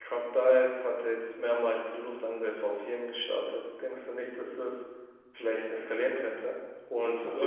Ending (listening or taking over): listening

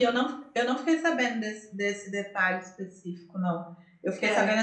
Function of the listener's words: listening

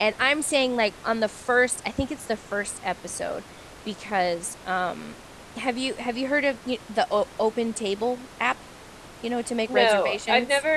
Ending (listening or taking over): taking over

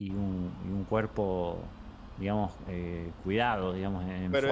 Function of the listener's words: taking over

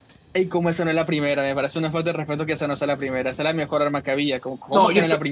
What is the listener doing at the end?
taking over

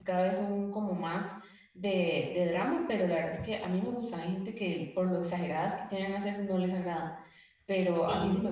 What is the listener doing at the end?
listening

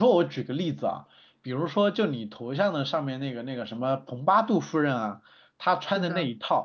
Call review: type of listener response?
listening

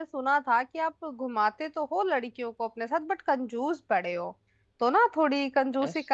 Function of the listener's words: listening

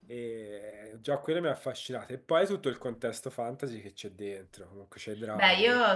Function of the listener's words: taking over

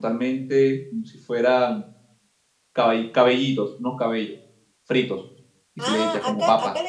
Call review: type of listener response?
taking over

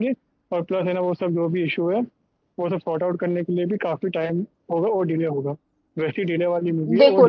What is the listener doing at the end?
taking over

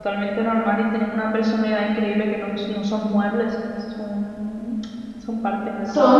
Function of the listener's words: taking over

